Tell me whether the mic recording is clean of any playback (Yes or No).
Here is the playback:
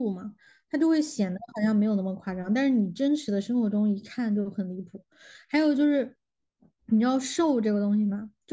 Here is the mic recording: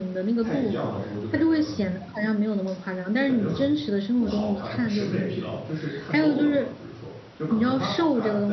No